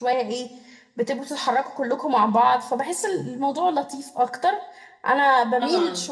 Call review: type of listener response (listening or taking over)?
listening